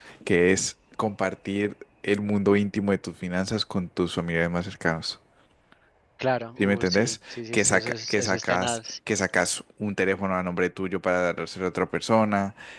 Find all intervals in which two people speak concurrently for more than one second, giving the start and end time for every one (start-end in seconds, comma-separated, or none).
6.6-8.8